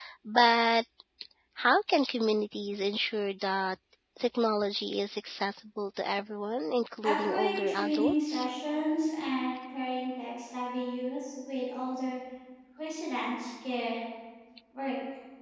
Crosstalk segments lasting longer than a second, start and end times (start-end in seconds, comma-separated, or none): 7.0-8.5